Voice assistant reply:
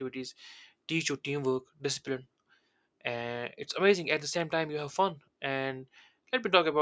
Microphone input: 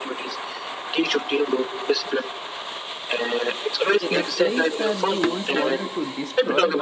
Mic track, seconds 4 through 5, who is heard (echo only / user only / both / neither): both